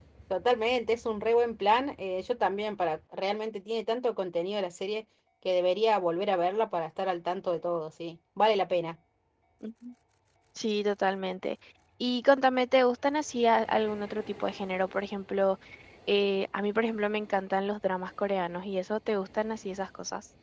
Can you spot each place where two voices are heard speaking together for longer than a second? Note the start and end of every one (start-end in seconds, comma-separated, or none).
none